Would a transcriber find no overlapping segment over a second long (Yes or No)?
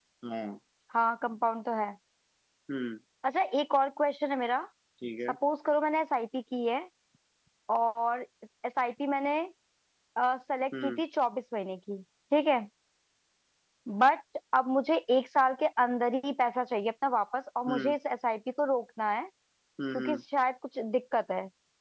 Yes